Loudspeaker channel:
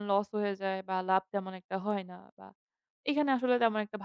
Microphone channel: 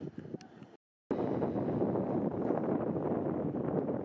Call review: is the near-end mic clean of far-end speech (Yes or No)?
Yes